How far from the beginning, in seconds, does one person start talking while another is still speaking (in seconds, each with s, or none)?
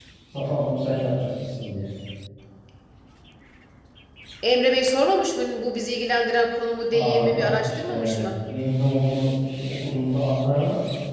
6.9 s